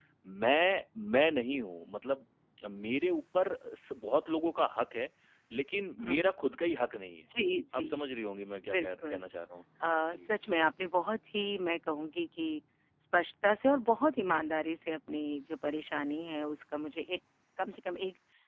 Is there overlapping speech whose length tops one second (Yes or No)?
No